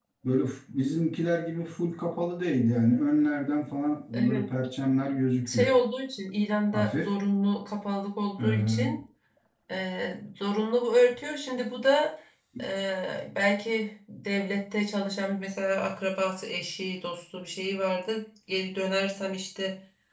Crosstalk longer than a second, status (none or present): none